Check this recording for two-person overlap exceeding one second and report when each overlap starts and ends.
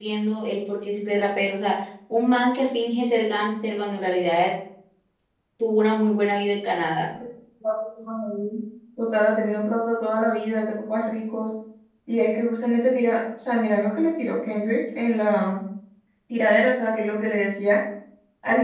none

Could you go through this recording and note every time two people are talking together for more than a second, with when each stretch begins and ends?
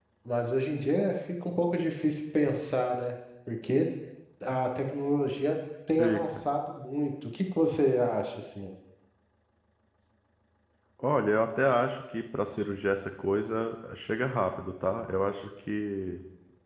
none

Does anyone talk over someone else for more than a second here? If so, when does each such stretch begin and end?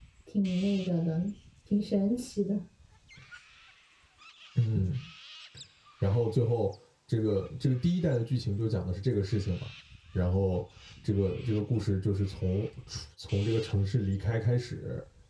none

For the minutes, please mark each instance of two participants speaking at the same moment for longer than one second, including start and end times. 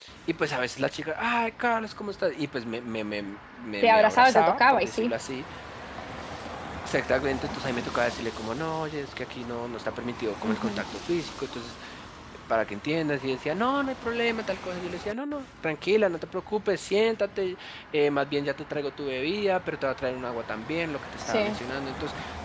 3.8-5.1

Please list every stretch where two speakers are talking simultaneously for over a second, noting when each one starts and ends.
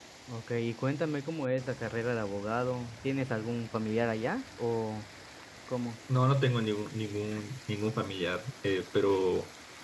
none

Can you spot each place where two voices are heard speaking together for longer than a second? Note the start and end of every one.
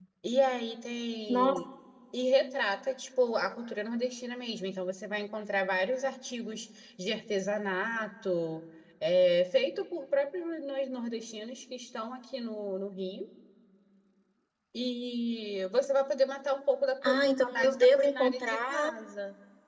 17.1-18.9

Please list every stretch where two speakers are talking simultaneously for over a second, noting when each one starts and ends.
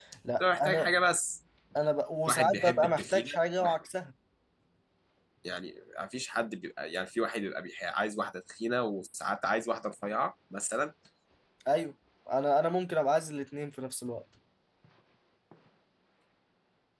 2.3-3.8

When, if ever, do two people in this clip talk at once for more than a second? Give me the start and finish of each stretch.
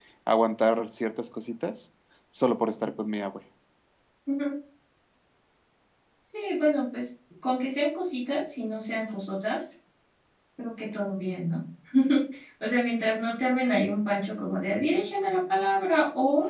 none

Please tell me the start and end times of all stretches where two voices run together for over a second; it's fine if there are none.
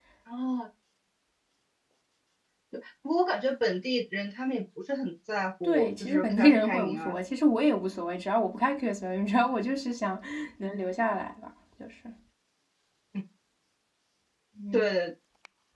5.6-7.1

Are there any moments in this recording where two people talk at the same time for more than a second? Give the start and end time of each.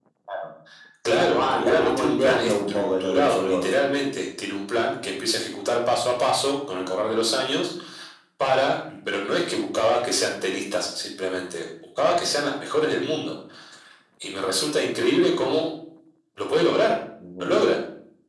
1.1-3.7

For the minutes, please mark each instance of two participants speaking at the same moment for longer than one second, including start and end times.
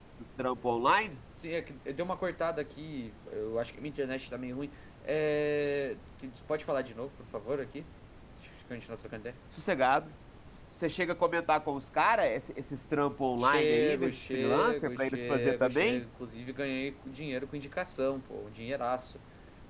13.4-16.0

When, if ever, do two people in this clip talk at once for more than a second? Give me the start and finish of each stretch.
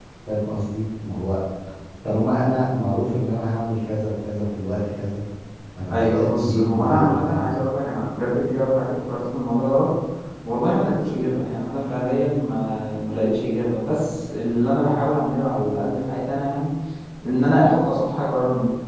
5.9-7.5

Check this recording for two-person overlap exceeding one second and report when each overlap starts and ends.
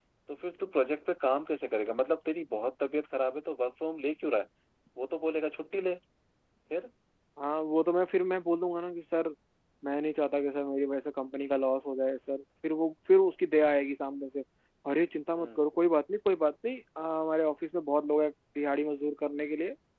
none

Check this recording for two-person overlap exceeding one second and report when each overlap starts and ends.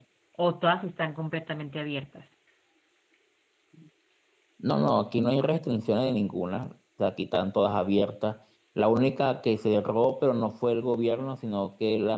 none

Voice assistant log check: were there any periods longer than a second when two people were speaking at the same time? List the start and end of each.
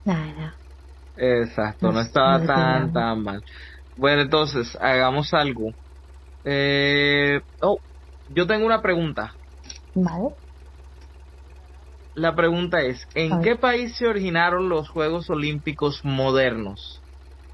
1.8-3.1

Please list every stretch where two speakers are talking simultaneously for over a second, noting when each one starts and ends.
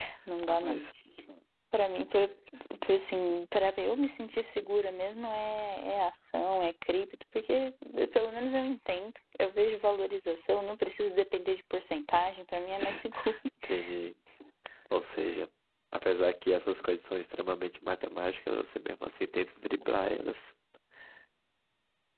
none

